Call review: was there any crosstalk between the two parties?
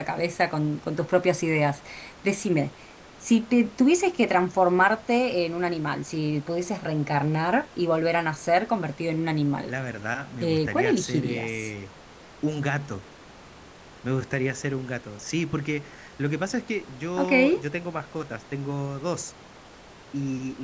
Yes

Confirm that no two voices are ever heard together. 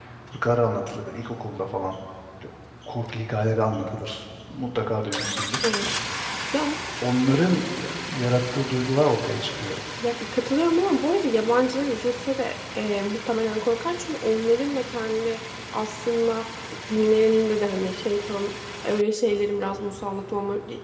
Yes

